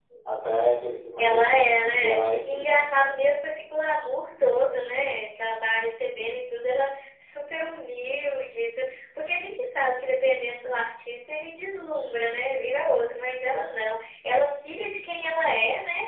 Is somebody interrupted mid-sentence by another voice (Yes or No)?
Yes